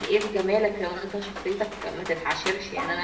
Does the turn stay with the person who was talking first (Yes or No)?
No